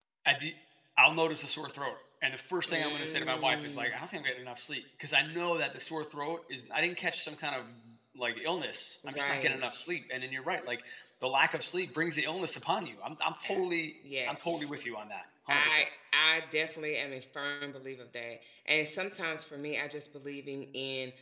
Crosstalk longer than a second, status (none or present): present